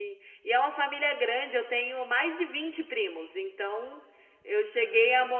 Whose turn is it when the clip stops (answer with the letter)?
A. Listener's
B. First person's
B